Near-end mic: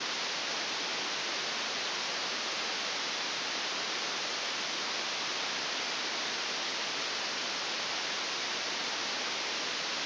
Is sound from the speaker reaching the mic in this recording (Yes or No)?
No